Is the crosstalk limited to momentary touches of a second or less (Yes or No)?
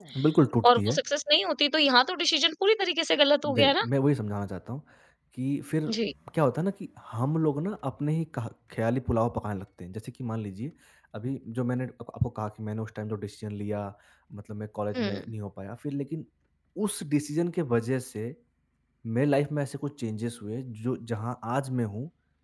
Yes